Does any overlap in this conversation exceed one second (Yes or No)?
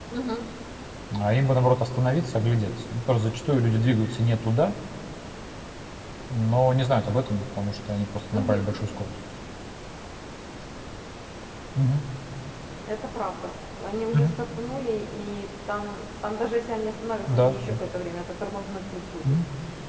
No